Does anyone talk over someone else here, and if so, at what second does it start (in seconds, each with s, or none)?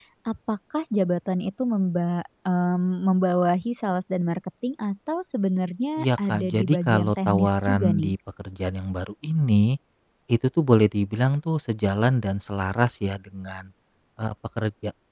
6.0 s